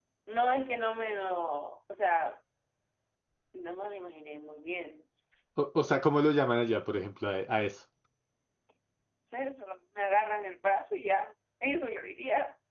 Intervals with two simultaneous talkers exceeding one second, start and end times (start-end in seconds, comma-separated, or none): none